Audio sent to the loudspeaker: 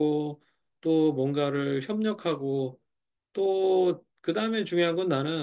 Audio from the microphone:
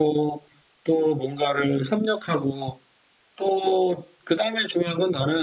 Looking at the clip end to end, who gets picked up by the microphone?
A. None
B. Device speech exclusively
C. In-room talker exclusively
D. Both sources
B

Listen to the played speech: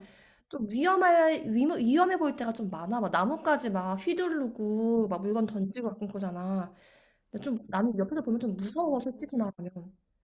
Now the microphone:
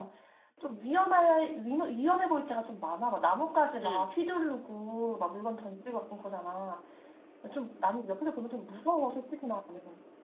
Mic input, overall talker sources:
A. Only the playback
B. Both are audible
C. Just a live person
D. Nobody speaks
B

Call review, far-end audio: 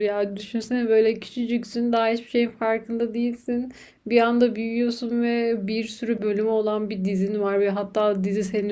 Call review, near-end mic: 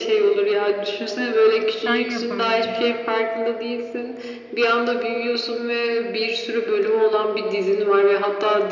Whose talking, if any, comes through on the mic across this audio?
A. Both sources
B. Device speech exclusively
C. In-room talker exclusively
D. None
A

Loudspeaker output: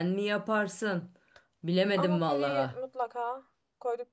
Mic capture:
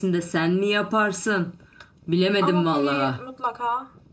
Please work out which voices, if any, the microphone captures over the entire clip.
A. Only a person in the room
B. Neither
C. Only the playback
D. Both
C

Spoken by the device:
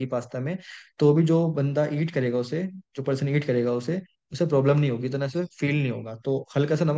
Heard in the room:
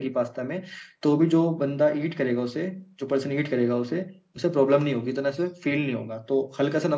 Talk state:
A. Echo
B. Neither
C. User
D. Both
A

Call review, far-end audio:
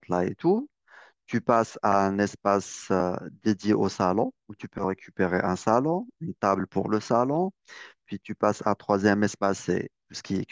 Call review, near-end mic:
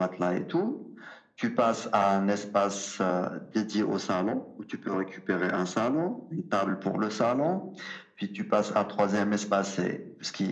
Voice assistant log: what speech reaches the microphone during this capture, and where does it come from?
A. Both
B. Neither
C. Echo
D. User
C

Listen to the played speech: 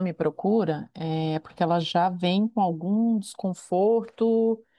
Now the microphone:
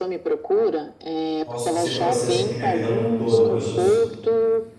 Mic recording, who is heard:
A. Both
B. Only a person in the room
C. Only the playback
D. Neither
A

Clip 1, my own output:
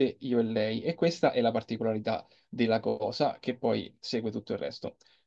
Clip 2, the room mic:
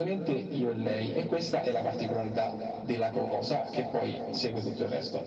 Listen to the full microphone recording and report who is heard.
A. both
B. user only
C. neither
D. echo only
D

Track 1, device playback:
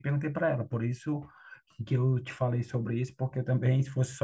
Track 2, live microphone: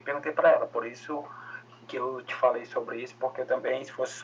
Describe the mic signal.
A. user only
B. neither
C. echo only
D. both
C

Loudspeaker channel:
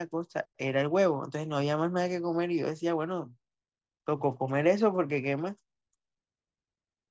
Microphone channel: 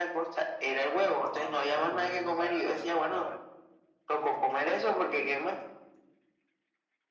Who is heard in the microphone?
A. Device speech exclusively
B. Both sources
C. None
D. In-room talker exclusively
B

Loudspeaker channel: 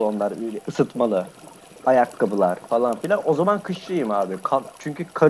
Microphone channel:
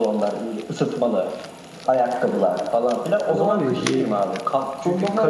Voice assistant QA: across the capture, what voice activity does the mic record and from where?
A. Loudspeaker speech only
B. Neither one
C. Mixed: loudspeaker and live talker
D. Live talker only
C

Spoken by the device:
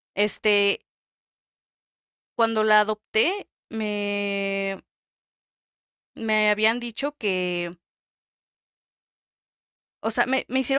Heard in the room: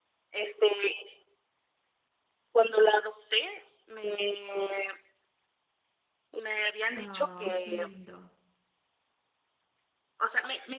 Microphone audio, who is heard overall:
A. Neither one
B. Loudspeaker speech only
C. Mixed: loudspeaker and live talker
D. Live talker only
C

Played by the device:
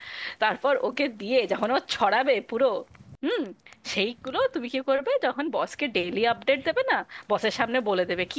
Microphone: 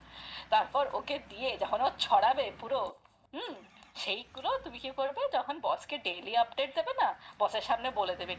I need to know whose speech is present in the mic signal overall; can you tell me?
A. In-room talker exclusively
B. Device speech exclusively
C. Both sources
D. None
B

